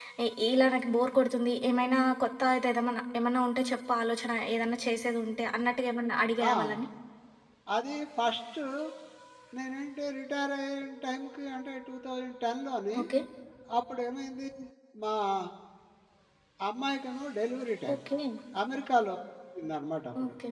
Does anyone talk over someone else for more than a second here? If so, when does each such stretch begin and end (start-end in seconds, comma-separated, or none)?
none